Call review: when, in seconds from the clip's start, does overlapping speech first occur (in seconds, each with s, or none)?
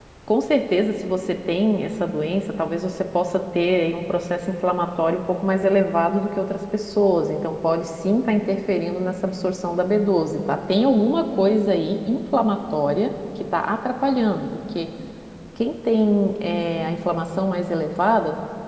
none